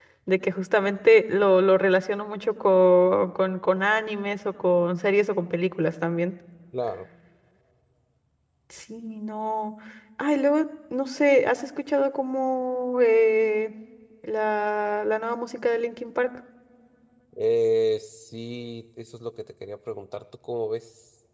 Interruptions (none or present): none